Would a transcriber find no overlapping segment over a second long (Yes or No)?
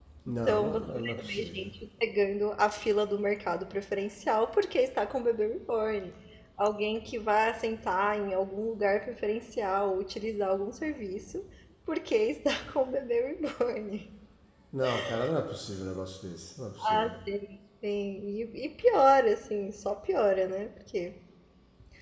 No